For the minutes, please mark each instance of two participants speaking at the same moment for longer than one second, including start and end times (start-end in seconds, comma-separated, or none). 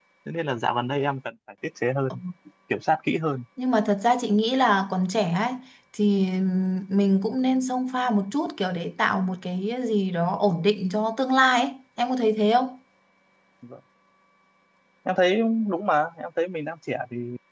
none